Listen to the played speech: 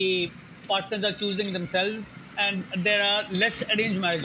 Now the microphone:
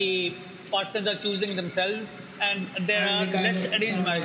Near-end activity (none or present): present